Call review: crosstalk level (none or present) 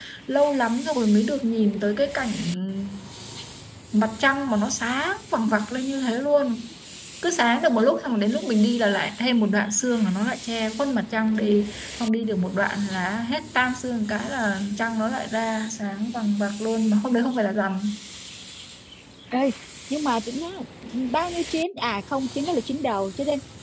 none